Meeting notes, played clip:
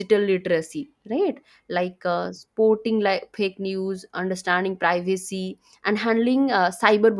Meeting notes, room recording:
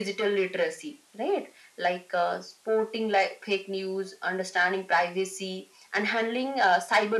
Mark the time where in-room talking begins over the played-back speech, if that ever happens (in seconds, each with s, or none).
none